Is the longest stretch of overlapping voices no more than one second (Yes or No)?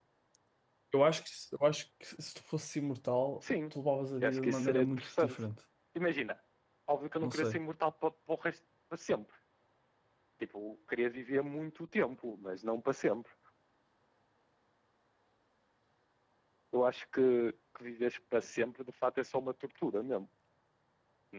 No